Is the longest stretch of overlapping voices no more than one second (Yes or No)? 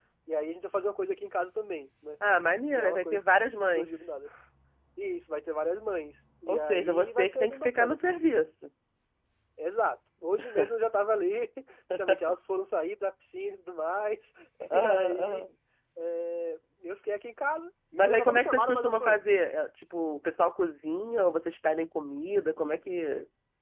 No